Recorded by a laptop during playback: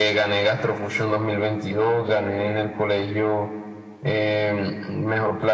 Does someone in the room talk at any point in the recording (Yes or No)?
No